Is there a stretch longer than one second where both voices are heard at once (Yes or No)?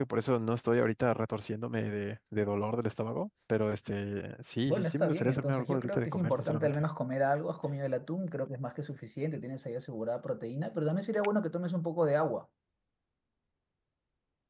Yes